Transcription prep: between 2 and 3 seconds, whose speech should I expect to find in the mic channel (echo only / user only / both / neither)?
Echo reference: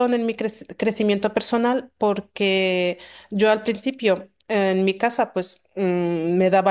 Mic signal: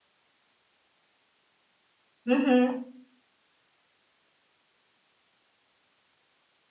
user only